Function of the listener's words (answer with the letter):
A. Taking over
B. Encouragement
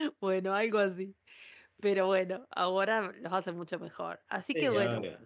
B